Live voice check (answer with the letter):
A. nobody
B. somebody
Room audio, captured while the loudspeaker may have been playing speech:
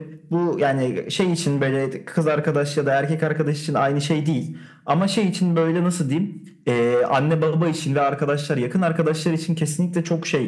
A